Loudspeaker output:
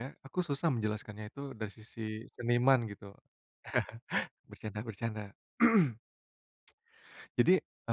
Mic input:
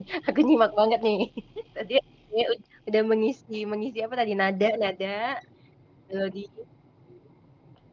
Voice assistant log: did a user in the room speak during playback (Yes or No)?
Yes